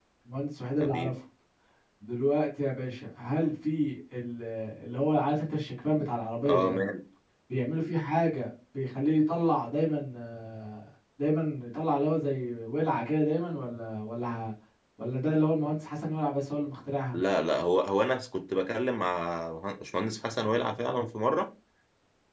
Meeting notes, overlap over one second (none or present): none